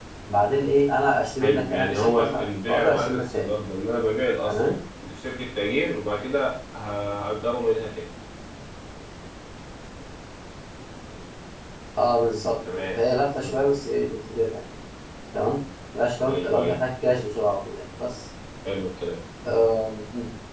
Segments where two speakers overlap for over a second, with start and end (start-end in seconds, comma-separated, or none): 1.4-3.5